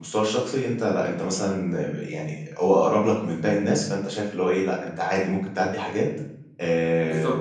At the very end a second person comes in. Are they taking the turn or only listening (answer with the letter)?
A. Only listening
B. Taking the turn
B